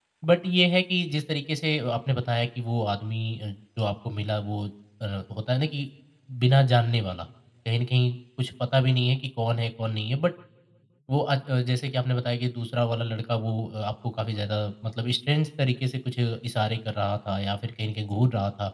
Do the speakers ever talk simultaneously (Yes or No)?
No